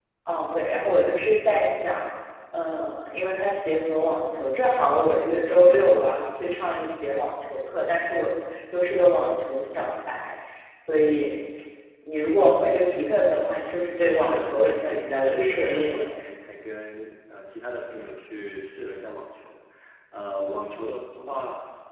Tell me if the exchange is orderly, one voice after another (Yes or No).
No